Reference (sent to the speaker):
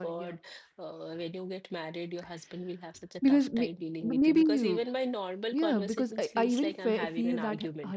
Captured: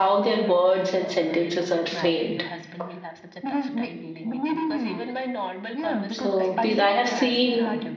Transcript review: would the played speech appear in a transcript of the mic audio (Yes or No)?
Yes